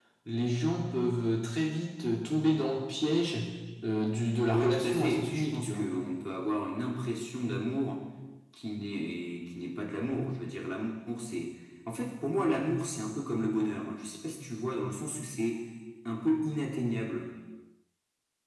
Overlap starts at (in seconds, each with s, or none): 4.5 s